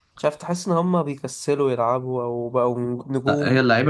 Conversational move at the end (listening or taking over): taking over